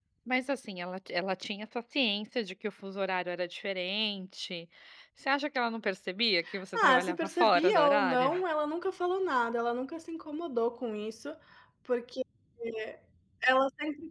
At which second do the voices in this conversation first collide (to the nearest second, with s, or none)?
7 s